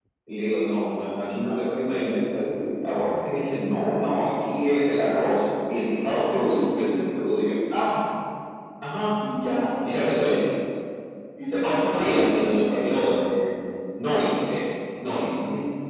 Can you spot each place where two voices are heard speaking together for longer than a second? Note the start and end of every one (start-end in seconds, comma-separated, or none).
11.6-13.2